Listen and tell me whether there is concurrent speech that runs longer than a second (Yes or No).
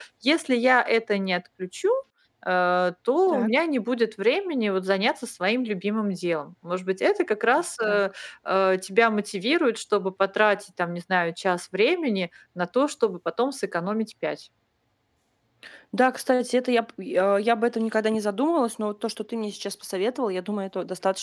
No